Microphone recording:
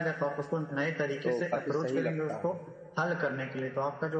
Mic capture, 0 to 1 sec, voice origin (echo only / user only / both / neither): echo only